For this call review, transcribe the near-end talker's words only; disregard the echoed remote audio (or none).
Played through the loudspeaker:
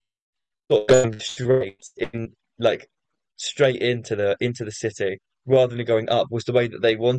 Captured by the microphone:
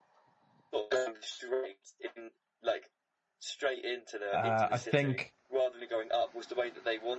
uh, I think.